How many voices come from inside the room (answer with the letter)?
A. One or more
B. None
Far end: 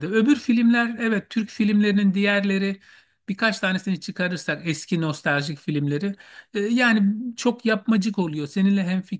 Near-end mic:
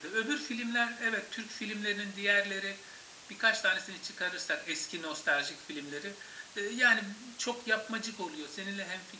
B